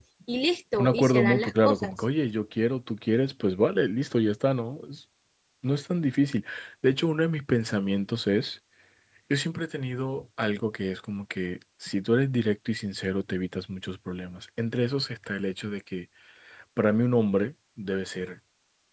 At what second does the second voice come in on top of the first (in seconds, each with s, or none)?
0.8 s